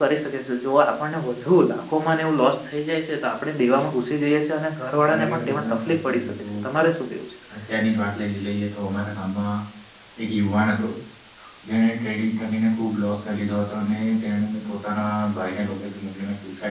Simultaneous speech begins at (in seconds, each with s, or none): 5.1 s